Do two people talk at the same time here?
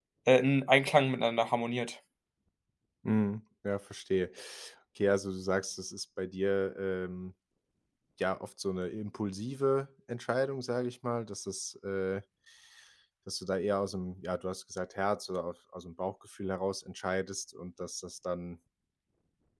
No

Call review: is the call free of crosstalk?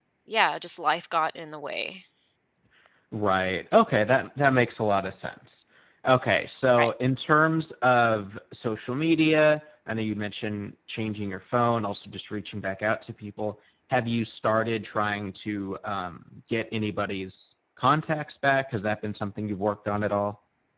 Yes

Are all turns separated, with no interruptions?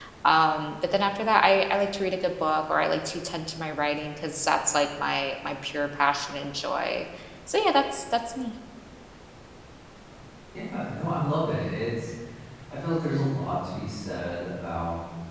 Yes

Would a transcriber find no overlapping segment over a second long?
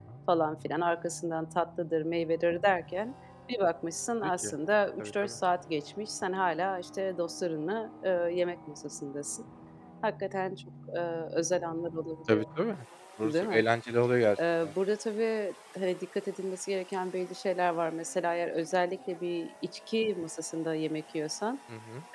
Yes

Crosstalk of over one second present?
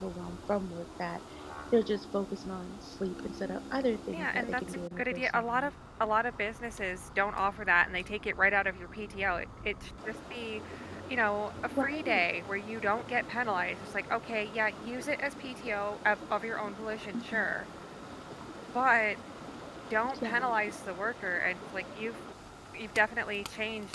Yes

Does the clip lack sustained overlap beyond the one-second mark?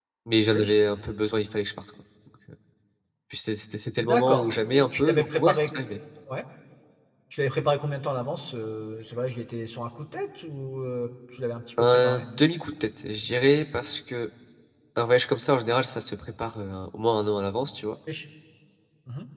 No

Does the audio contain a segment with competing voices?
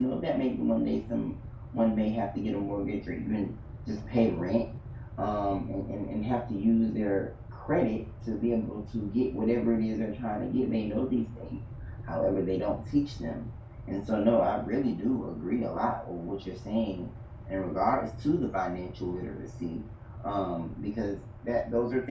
No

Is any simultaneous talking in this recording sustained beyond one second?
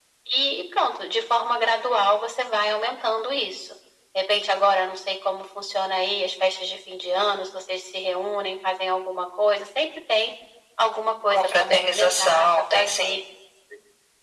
Yes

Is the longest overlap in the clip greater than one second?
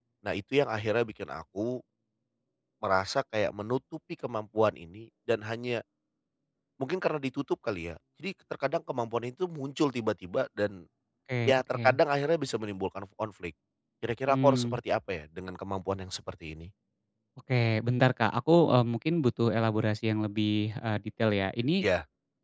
No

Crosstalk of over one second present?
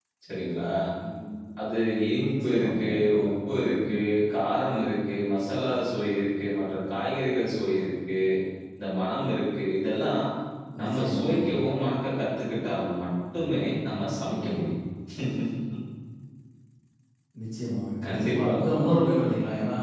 Yes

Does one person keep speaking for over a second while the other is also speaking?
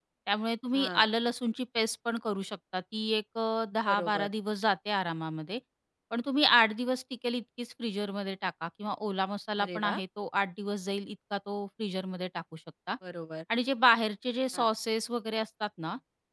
No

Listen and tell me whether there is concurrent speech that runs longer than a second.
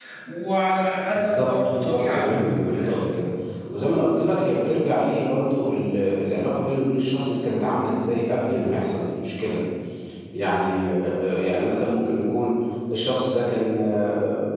Yes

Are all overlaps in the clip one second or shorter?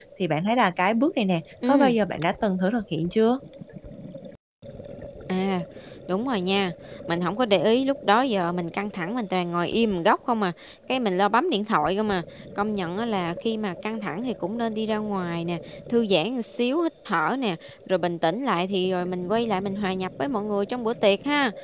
Yes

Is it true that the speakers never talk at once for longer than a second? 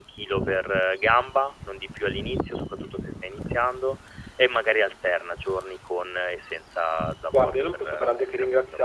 No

